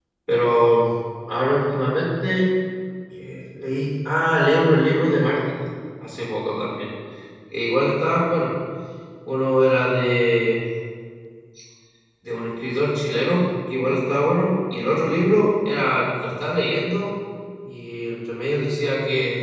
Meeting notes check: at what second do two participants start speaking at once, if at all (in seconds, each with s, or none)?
none